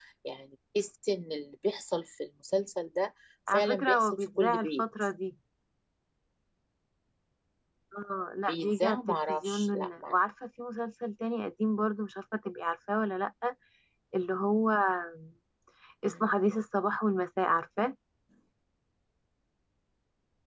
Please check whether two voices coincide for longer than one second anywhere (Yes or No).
Yes